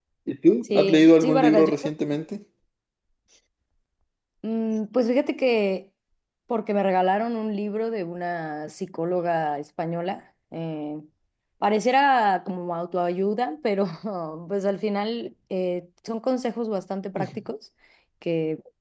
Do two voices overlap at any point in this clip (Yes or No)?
Yes